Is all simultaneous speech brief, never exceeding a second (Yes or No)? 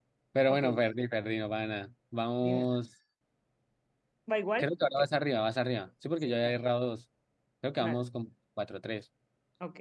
Yes